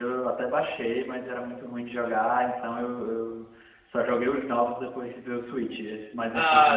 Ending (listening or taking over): taking over